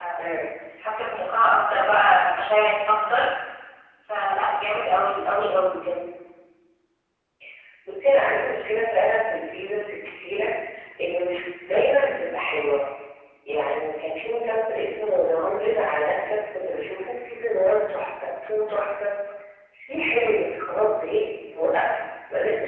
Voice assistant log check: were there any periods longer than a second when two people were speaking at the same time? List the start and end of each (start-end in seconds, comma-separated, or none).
none